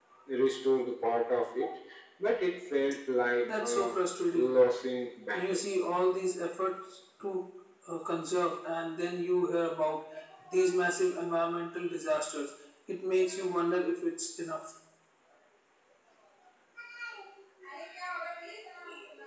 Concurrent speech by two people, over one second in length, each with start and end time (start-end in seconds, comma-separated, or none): none